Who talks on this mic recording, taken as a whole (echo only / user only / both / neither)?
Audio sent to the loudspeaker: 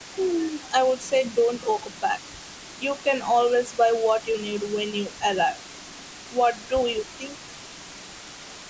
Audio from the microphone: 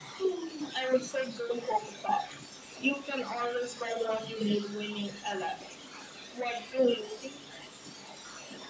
echo only